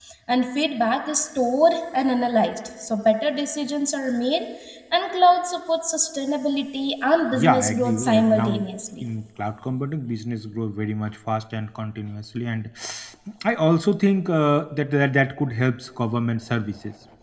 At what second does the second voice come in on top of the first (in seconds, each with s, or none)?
7.3 s